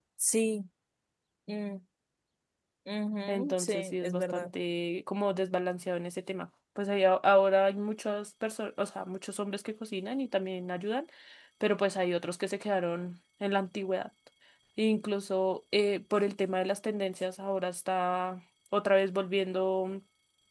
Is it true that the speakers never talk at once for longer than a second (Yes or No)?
No